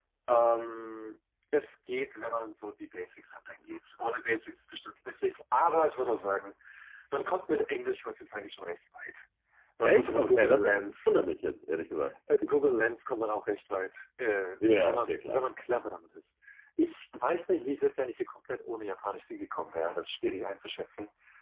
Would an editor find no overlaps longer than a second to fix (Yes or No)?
No